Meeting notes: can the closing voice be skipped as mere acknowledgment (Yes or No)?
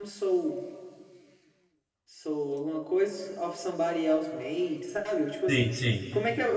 Yes